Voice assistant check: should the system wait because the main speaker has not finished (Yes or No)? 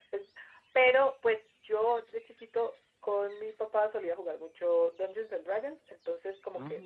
Yes